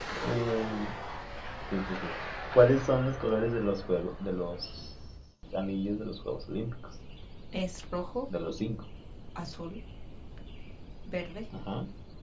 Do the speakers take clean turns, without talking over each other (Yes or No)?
Yes